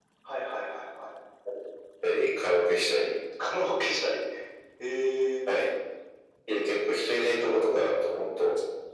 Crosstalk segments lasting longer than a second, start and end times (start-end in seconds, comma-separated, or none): none